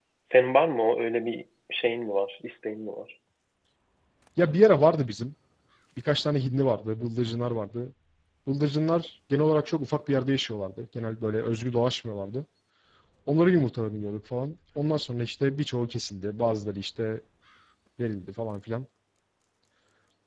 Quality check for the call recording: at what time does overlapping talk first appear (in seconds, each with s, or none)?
none